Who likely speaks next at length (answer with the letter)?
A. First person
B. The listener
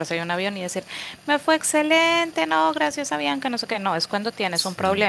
A